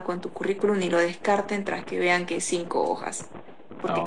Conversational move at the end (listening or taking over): listening